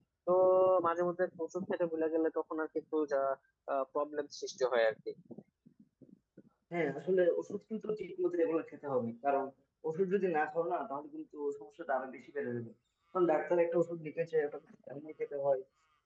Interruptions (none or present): none